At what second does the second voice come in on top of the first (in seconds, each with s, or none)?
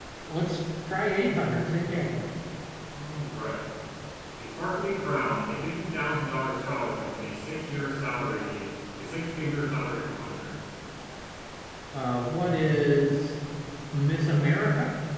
none